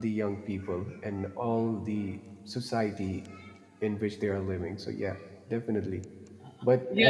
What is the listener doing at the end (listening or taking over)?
taking over